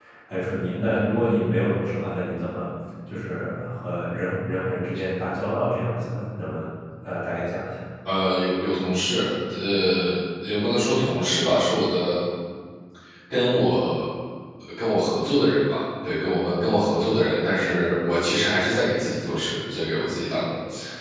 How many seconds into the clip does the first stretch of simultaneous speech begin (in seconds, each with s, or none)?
none